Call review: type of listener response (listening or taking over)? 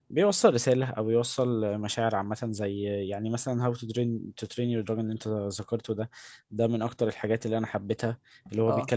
listening